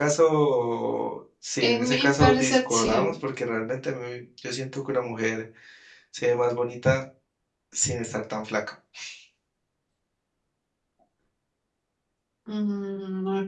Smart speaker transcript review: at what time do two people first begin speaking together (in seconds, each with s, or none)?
1.6 s